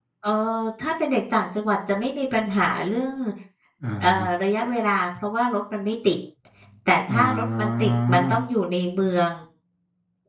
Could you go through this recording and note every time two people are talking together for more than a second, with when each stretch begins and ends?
7.1-8.4

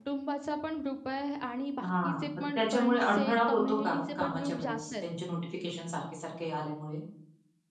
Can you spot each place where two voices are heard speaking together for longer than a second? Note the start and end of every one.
1.8-5.1

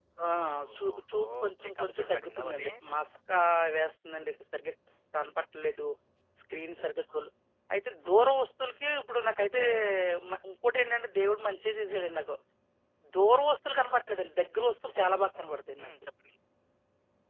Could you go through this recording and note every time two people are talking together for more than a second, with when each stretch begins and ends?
0.8-2.7

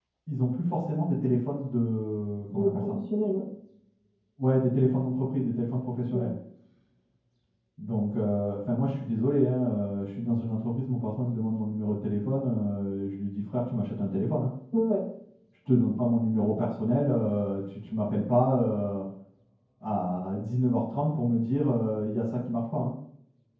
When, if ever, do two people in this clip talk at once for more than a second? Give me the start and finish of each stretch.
none

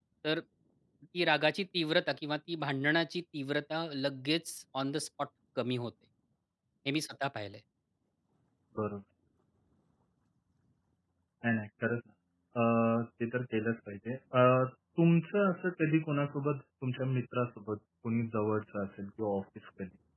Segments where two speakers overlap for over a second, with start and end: none

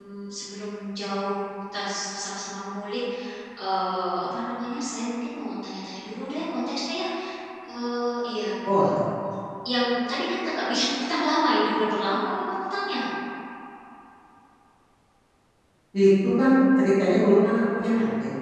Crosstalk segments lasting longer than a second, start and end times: none

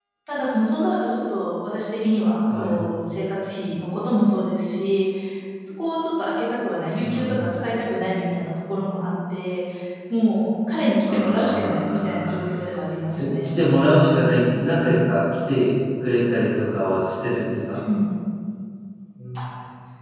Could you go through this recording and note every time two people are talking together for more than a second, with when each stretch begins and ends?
11.1-12.5

